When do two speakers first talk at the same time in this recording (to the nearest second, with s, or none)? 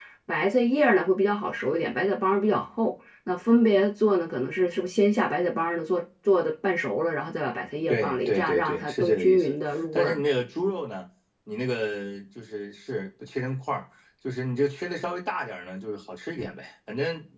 8 s